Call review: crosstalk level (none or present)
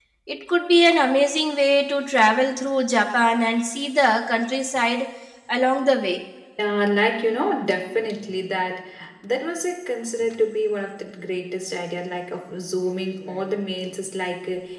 none